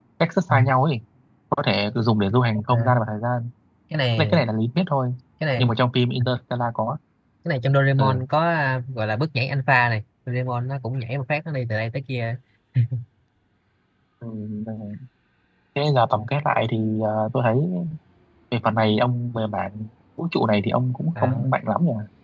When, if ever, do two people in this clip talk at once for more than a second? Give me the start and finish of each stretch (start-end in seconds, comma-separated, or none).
none